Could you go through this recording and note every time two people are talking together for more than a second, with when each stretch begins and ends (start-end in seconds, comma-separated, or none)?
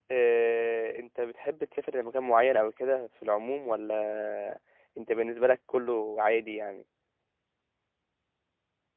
none